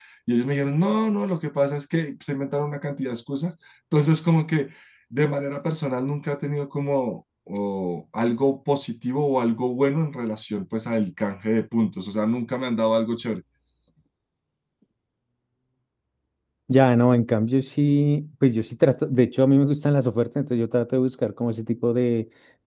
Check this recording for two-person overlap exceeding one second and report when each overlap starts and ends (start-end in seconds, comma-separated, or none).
none